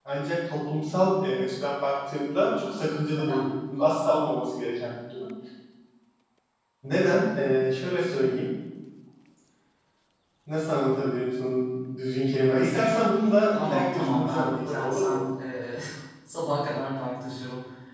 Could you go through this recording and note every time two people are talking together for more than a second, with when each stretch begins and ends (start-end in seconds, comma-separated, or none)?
13.6-15.2